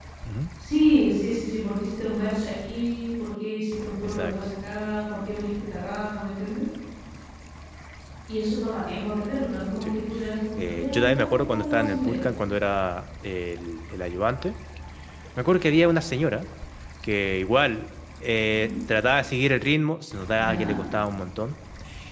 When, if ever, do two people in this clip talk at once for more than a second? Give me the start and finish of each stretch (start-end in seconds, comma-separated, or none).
10.6-12.2